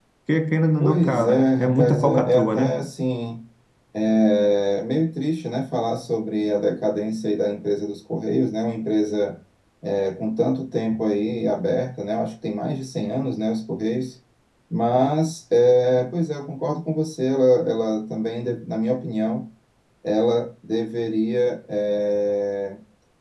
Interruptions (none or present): present